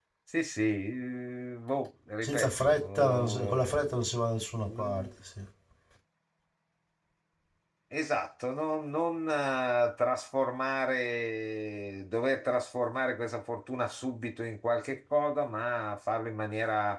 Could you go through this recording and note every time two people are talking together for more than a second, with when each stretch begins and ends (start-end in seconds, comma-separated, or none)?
2.2-4.0